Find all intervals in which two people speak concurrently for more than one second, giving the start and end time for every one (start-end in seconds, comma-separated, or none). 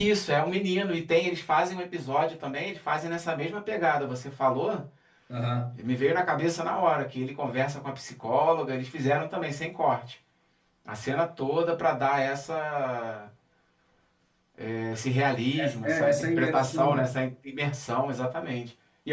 15.6-17.1